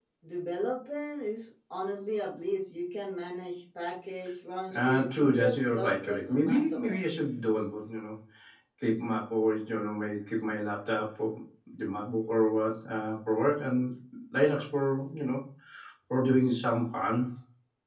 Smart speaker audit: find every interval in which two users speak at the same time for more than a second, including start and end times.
4.7-7.0

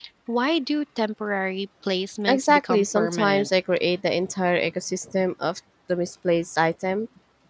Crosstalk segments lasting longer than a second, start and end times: 2.3-3.5

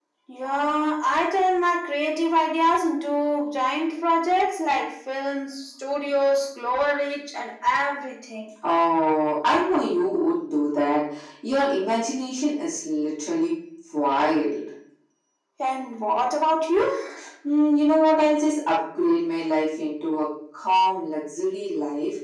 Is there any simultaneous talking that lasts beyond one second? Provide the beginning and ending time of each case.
none

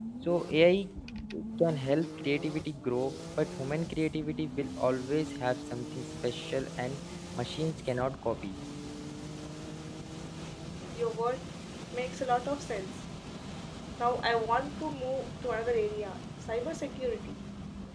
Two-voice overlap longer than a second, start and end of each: none

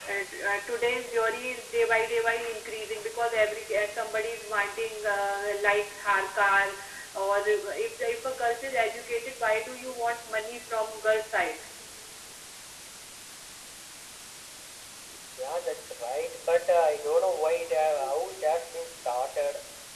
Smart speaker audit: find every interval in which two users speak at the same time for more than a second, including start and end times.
none

